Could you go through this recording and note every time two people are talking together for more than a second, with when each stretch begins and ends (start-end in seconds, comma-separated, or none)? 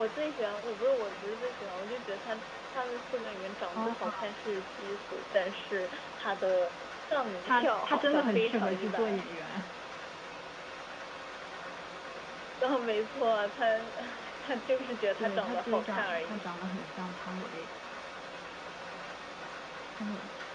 7.4-9.2, 15.2-16.4